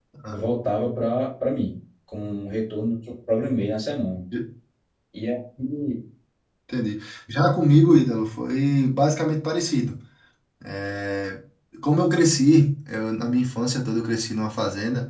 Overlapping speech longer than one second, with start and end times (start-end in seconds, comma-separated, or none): none